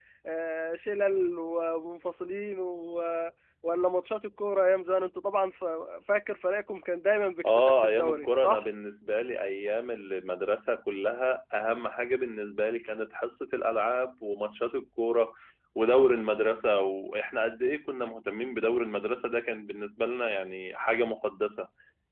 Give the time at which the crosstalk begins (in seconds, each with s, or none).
7.4 s